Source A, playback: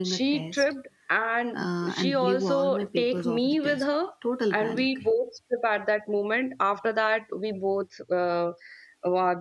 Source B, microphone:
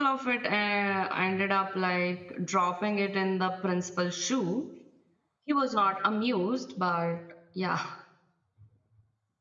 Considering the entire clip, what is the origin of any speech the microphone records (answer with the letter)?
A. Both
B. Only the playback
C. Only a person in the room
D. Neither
C